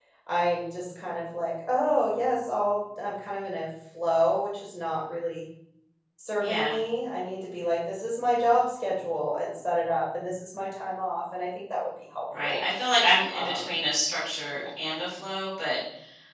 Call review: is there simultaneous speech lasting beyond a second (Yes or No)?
No